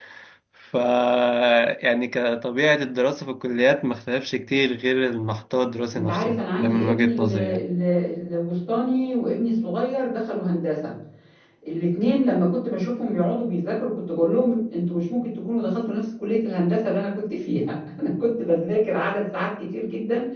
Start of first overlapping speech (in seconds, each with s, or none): 5.9 s